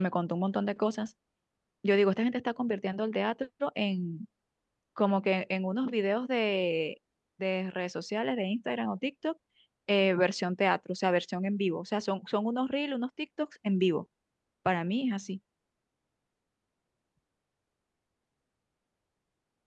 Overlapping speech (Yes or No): No